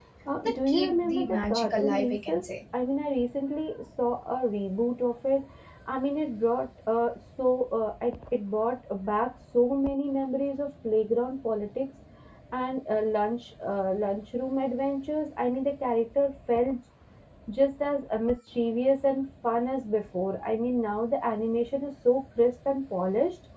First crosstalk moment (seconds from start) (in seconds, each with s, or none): 0.7 s